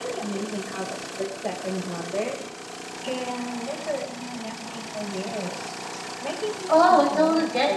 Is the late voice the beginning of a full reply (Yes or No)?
Yes